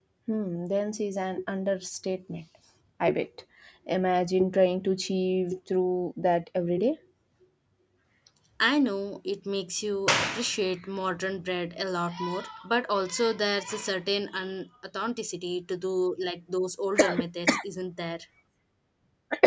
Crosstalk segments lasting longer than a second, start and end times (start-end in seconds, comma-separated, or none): none